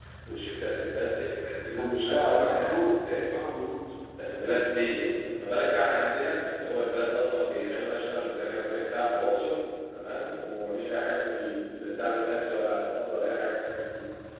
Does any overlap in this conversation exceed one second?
Yes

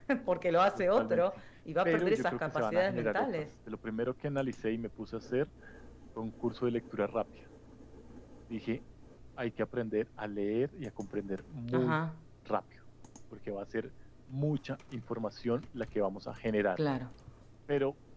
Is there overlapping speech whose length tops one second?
Yes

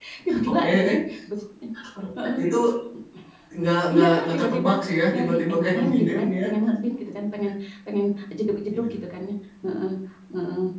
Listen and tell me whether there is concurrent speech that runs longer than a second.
Yes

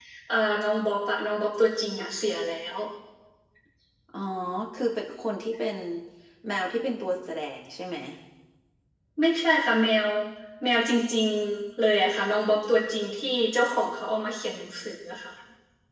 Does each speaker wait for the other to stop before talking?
Yes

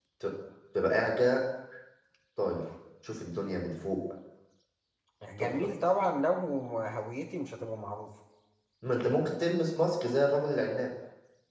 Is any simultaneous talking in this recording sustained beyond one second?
No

